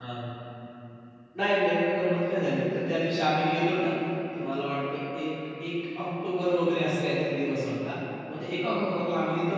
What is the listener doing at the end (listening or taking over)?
listening